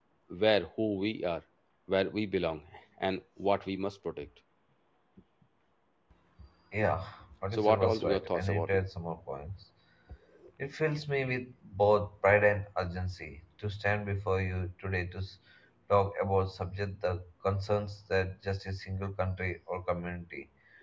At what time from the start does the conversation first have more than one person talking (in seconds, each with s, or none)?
7.5 s